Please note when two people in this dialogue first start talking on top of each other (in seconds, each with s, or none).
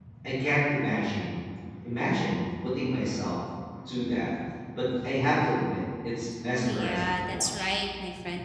6.6 s